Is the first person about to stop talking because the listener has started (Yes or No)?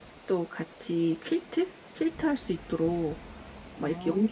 No